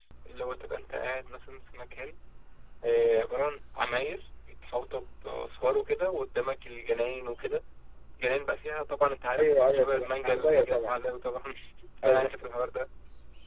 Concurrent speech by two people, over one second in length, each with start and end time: 9.4-10.9

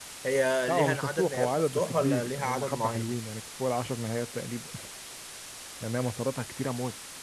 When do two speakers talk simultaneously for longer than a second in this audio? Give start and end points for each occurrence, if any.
0.7-3.2

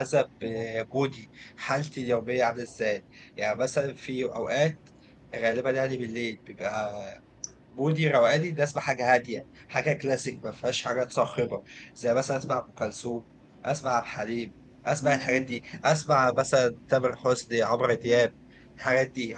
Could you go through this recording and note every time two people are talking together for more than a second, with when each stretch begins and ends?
none

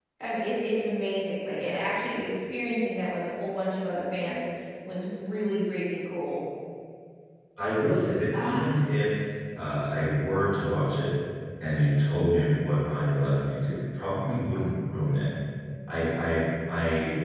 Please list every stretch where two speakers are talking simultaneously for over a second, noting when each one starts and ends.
none

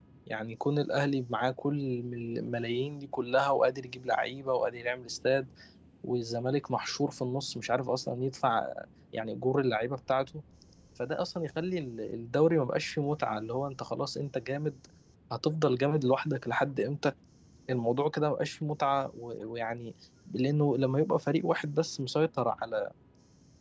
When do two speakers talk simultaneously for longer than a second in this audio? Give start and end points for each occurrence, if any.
none

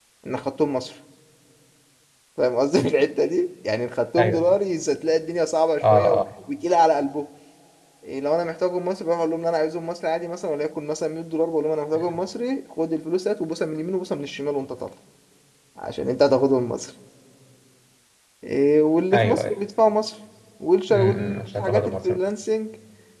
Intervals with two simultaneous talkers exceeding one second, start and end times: 20.9-22.2

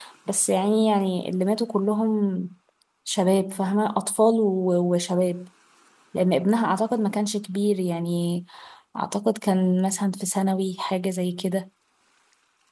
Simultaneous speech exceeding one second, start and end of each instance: none

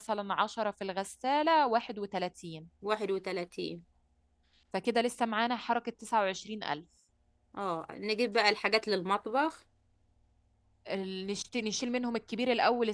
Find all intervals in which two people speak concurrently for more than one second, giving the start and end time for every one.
none

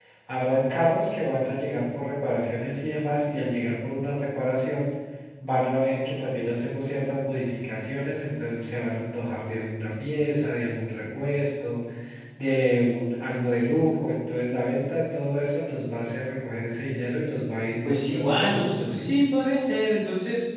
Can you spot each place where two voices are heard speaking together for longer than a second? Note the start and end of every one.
17.8-19.1

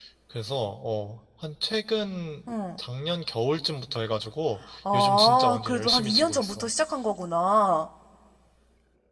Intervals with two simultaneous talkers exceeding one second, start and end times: 4.9-6.7

